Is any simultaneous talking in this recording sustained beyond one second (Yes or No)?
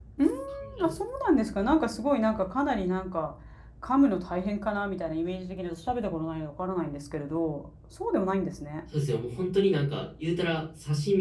No